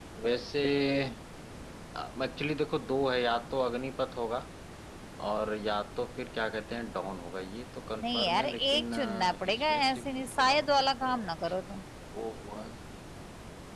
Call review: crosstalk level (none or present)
present